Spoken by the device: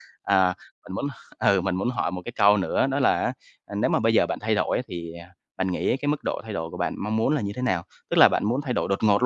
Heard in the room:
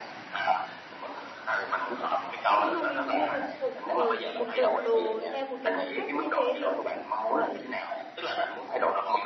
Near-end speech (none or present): present